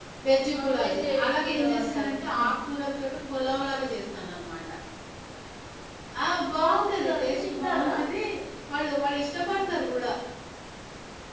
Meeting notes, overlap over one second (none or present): present